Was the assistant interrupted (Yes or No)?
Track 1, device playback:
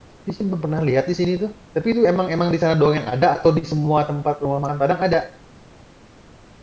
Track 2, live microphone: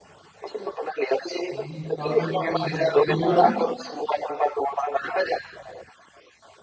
Yes